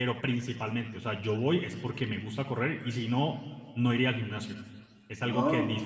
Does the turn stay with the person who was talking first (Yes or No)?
Yes